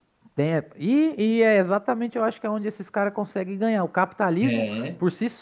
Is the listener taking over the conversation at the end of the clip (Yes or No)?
No